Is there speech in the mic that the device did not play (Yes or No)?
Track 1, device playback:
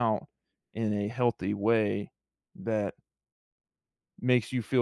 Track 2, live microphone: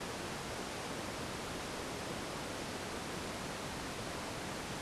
No